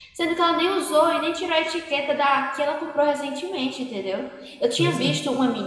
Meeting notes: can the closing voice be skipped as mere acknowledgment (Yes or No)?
Yes